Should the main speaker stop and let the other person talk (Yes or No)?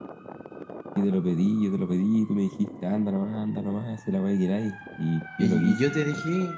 Yes